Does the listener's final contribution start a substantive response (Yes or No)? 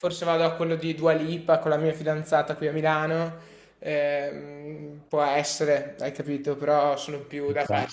No